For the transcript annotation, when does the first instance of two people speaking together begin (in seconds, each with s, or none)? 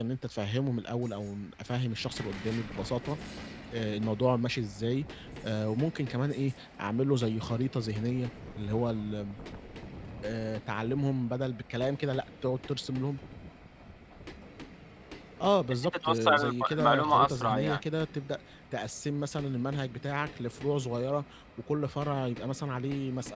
15.8 s